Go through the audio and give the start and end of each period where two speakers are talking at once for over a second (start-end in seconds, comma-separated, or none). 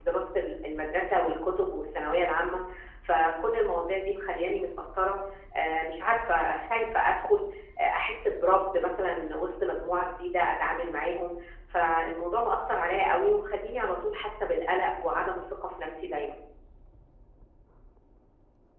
none